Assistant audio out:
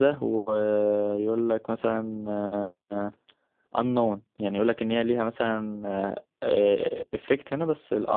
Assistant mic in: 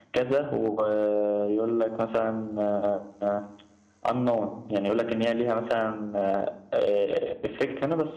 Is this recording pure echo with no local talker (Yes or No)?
Yes